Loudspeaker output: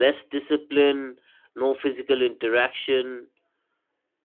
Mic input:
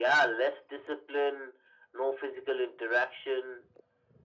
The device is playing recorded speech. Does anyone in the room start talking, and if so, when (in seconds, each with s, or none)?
none